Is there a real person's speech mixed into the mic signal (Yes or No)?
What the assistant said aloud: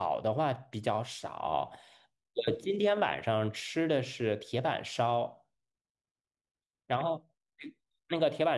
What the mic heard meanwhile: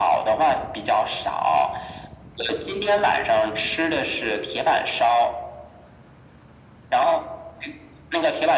No